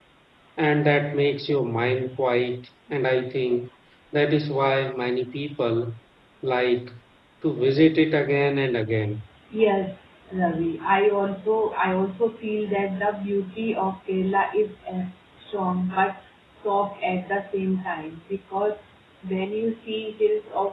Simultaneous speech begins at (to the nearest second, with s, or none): none